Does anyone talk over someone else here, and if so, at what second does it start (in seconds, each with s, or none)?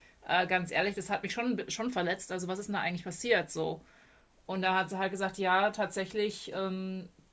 none